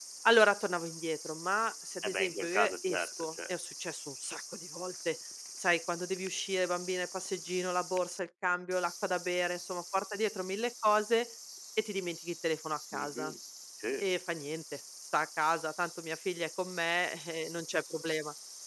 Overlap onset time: 2.0 s

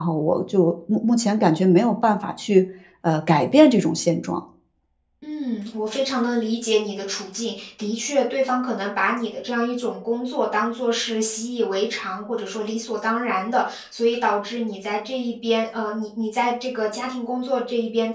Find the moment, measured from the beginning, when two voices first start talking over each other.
none

